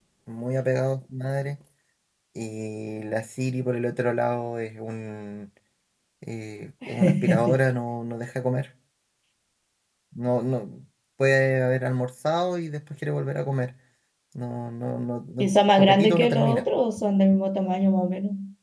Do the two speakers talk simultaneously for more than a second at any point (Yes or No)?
Yes